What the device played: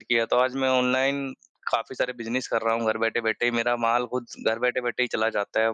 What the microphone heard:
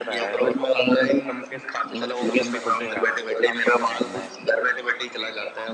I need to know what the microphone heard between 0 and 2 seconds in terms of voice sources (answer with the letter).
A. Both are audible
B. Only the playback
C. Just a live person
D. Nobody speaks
A